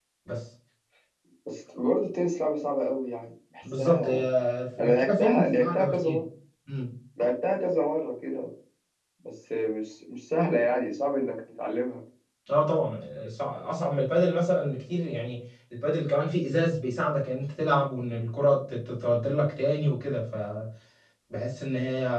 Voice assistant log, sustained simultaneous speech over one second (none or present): present